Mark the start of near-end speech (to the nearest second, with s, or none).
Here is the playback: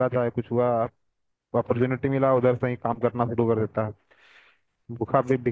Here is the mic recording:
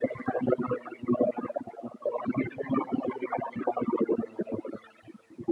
none